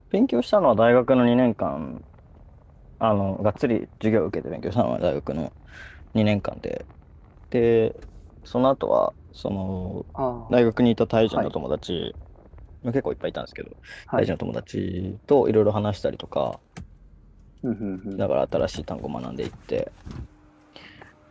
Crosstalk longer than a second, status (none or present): none